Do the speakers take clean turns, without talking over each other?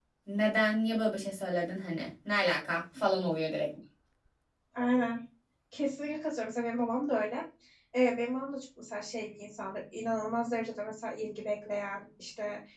Yes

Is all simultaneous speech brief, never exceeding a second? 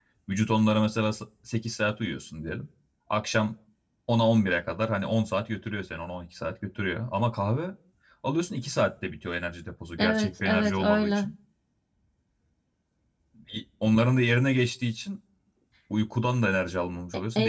No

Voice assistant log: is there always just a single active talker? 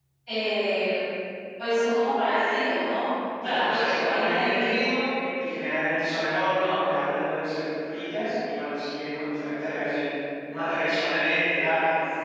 No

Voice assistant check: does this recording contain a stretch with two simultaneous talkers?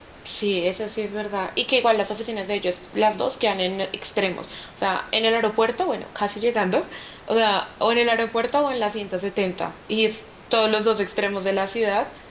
No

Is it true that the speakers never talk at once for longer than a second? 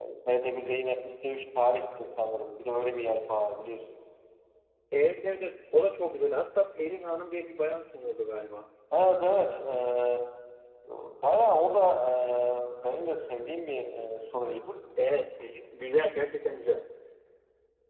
Yes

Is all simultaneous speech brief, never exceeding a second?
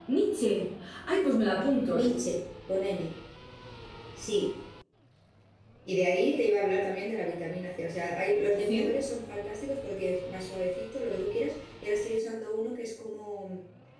Yes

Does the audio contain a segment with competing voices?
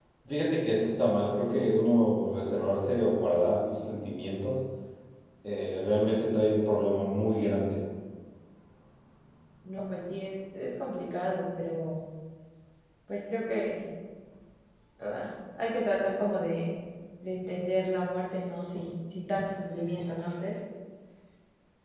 No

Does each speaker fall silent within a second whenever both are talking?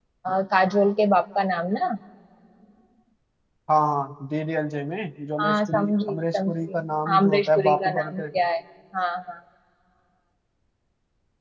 No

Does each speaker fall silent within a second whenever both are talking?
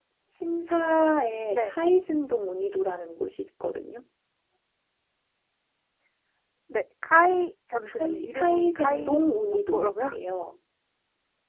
No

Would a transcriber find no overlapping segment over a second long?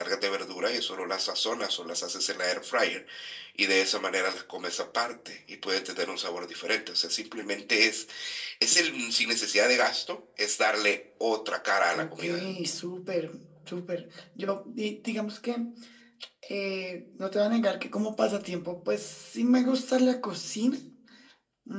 Yes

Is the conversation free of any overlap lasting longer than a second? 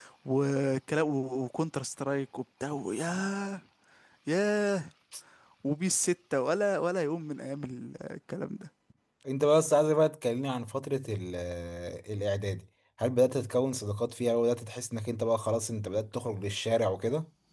Yes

